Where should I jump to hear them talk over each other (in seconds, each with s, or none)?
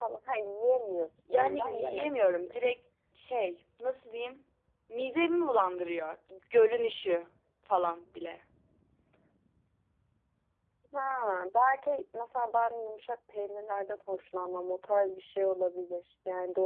1.3 s